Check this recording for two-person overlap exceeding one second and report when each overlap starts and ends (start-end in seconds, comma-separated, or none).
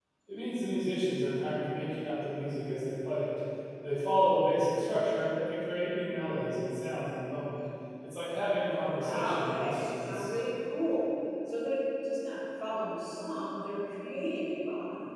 8.6-10.3